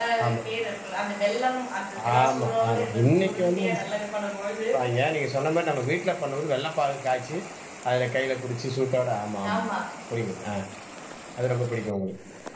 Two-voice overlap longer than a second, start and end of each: 2.2-3.9

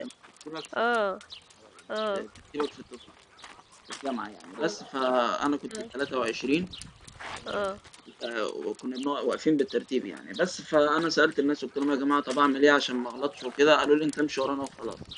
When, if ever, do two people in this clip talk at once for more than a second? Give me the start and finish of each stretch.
none

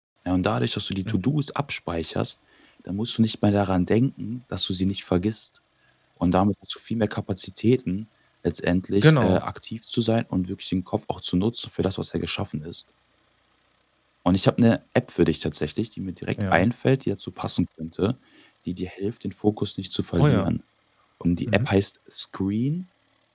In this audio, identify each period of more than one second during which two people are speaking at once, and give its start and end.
none

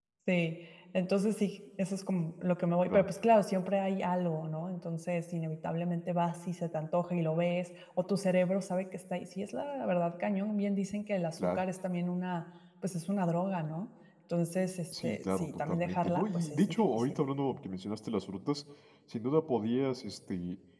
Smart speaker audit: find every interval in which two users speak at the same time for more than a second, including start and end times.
14.9-17.1

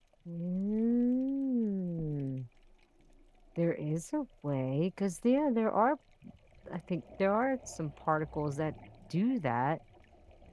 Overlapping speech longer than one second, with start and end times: none

